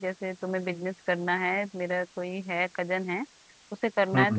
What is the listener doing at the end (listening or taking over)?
listening